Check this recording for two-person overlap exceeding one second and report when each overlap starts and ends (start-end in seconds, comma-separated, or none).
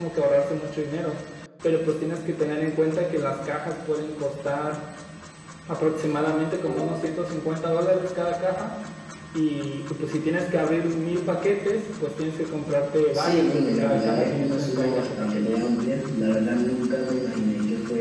13.1-15.6